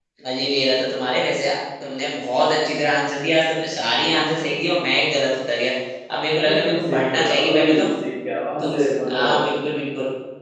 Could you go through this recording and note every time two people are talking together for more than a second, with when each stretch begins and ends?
6.4-7.9

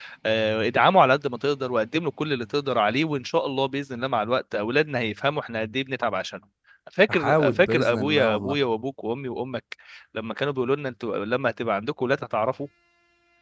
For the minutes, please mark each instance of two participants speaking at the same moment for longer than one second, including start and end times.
7.1-8.6

